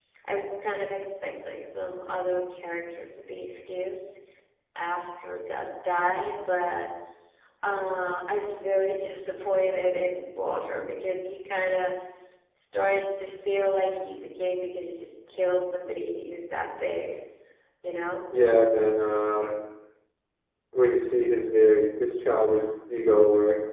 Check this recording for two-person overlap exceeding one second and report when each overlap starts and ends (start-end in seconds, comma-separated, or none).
none